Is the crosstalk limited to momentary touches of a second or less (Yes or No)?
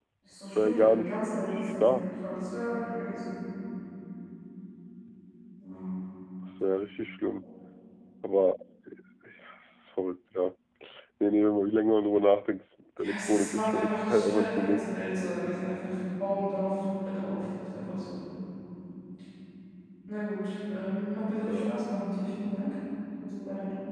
No